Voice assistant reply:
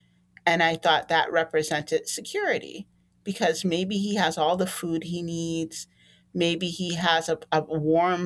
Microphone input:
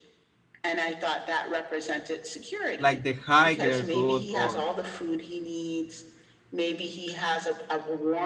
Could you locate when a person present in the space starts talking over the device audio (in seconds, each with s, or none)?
2.8 s